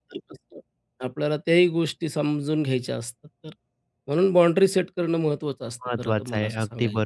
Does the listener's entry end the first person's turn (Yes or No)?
Yes